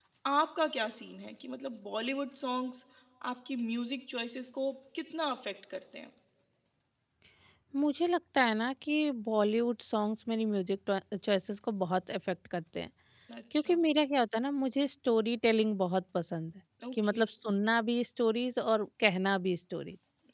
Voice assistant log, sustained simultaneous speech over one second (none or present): none